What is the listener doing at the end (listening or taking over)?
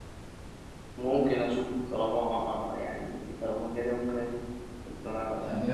taking over